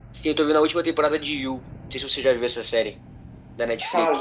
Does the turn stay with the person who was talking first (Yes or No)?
No